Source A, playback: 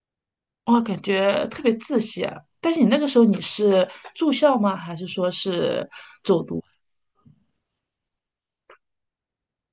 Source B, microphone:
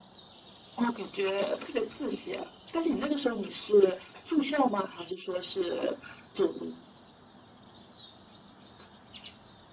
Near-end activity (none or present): none